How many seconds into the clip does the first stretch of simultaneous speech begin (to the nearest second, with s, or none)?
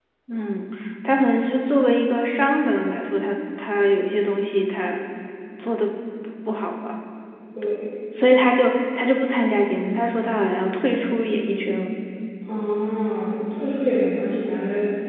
none